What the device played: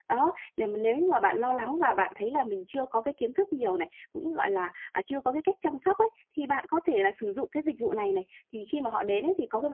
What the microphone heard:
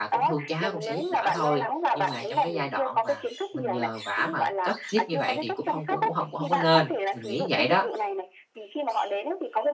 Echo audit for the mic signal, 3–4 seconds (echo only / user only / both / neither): both